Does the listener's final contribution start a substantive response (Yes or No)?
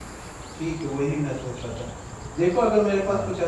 No